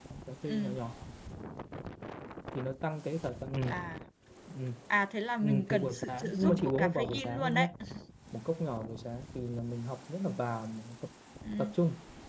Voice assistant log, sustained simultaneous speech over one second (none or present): present